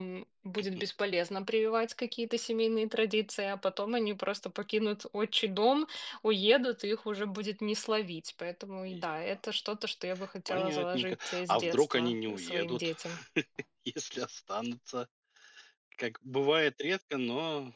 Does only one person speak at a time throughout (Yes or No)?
No